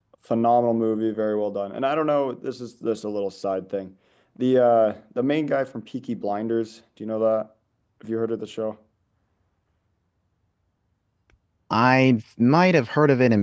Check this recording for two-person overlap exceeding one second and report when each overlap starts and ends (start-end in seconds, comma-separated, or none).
none